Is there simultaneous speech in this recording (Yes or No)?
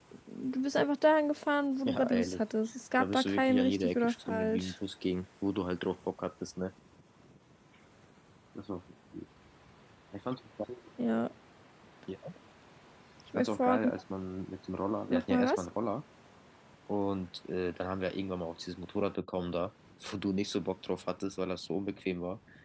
Yes